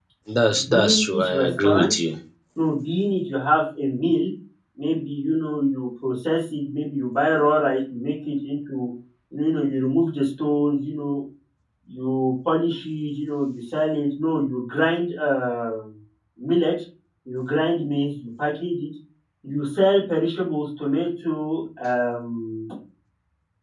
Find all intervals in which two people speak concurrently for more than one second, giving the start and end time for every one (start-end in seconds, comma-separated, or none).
0.7-1.9